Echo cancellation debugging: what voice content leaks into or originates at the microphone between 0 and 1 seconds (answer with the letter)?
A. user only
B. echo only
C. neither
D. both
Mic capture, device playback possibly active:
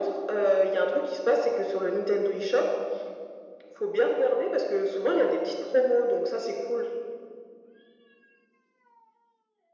B